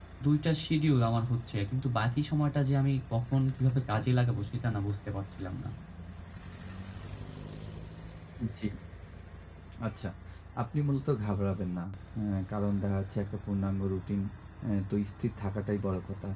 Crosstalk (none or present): none